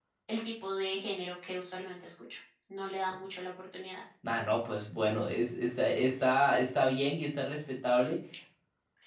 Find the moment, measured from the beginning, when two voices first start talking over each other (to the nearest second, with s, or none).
none